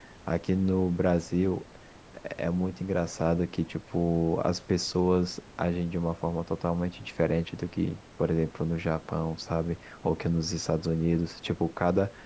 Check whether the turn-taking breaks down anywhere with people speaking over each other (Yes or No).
No